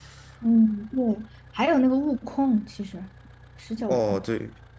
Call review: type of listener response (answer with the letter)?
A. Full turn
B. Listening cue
A